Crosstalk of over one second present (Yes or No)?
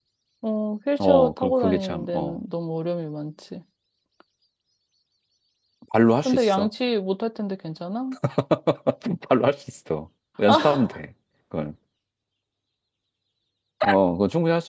Yes